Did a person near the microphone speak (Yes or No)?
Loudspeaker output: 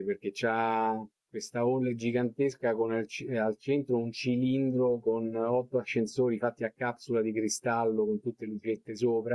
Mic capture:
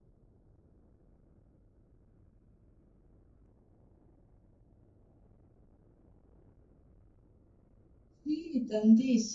Yes